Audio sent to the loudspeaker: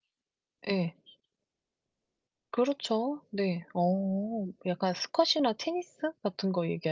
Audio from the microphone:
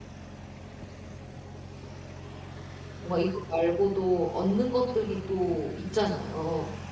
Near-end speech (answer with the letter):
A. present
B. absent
A